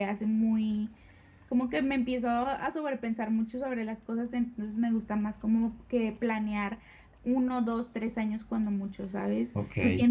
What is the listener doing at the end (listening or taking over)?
listening